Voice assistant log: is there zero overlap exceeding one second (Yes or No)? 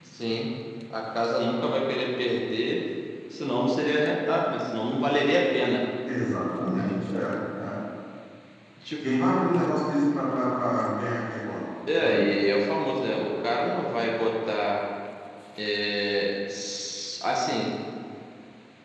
Yes